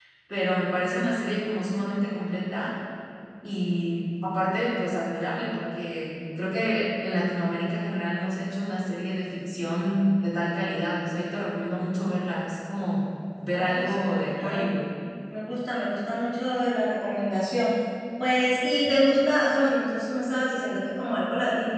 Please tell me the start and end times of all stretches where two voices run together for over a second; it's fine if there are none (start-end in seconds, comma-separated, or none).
13.5-14.7